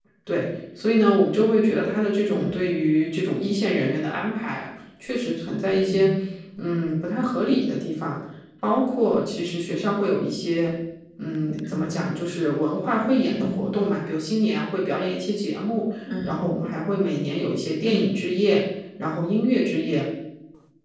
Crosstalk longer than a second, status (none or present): none